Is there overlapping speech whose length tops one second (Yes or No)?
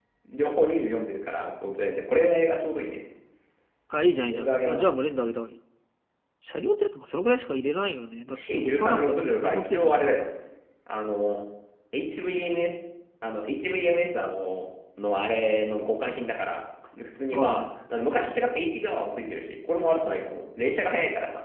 Yes